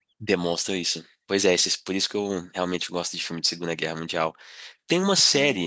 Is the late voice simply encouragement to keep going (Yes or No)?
Yes